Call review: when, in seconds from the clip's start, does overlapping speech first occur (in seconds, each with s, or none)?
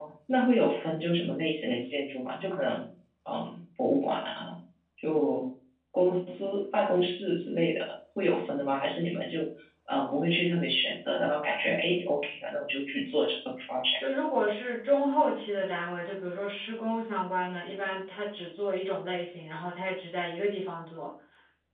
none